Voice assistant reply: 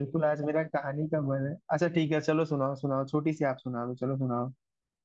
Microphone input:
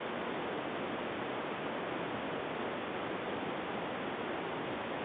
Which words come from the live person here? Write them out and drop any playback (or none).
none